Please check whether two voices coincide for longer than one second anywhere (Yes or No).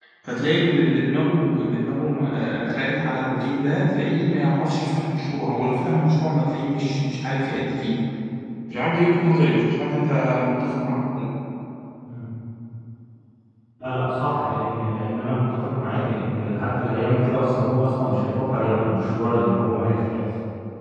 No